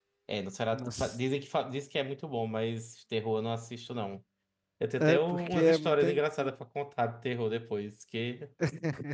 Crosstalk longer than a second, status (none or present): present